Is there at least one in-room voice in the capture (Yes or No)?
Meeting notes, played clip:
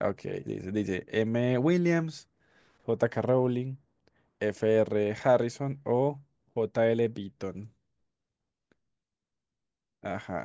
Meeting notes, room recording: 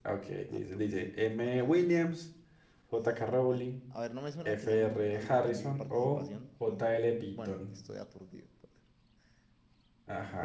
Yes